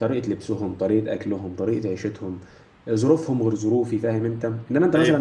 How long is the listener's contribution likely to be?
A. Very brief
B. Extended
A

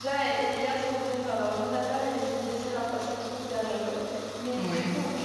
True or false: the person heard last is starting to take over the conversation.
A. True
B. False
B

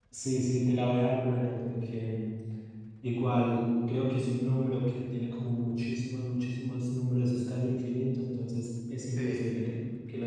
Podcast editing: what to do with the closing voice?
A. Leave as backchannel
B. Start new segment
A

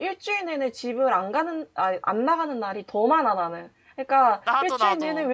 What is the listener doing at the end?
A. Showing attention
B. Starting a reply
A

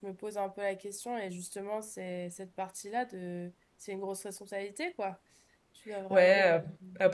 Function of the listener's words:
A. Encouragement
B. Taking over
B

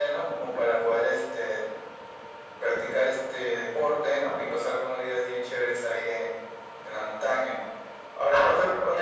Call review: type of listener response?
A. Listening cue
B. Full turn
A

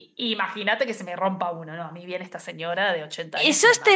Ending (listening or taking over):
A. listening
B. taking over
B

